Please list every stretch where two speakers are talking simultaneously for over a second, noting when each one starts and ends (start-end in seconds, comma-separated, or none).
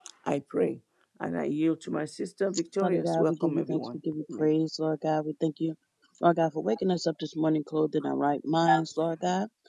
2.8-4.5